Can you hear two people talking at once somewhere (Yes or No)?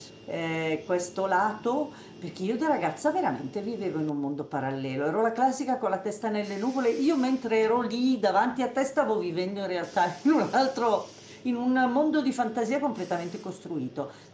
No